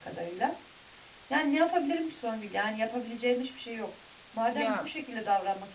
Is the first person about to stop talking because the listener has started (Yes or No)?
No